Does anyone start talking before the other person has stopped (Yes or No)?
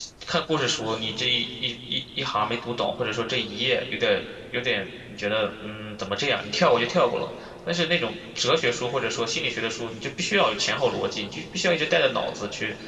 No